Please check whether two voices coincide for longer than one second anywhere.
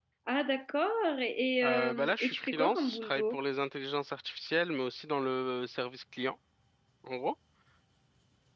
Yes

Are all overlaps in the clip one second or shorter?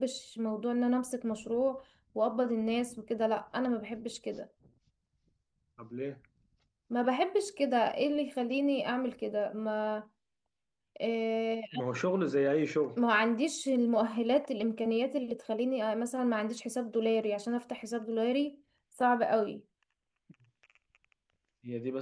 Yes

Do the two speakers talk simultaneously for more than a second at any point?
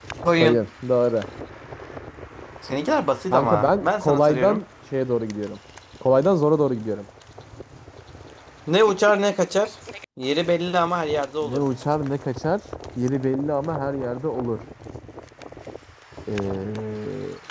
Yes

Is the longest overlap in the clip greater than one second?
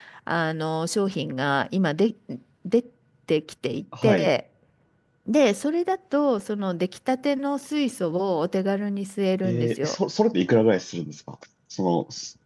No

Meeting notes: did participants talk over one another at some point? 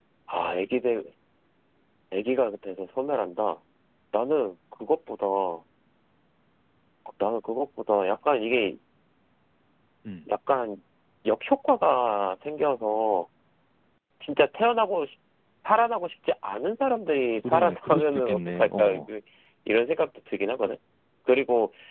Yes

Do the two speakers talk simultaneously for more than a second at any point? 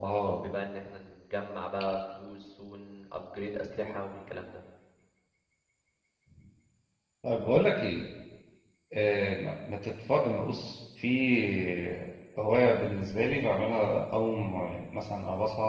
No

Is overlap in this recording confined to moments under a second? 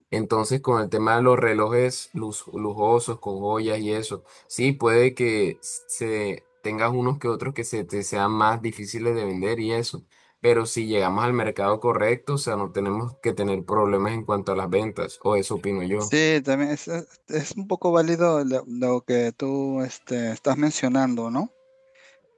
Yes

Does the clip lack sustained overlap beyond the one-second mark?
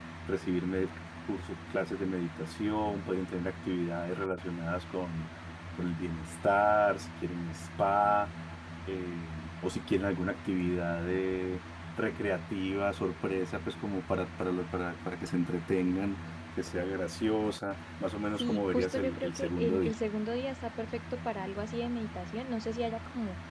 No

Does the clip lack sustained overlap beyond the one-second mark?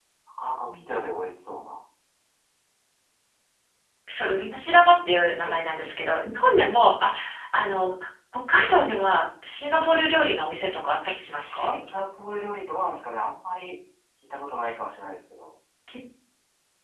Yes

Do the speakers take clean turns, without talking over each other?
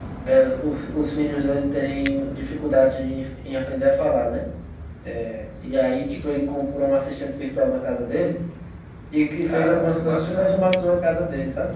No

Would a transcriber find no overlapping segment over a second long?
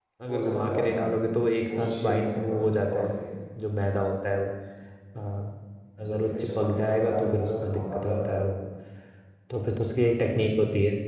No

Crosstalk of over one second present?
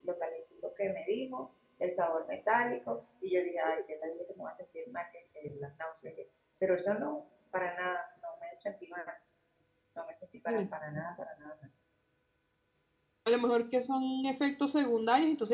No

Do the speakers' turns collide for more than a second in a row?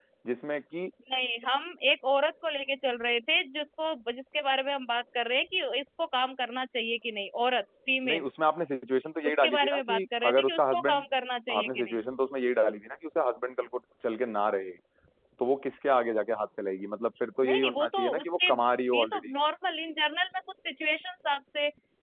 Yes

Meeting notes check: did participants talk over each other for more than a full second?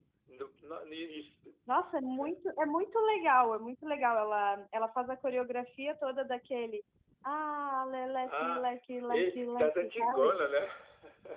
Yes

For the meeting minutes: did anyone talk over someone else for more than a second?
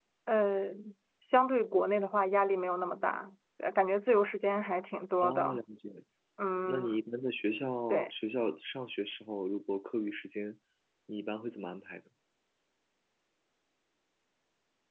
No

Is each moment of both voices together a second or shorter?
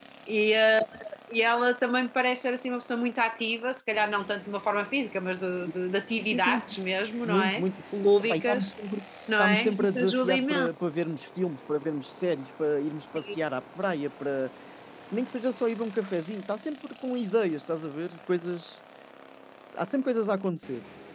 No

